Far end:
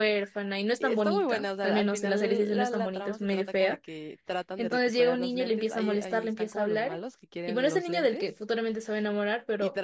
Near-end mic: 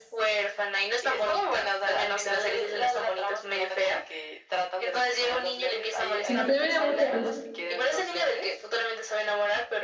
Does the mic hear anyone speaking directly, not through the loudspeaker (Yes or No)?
Yes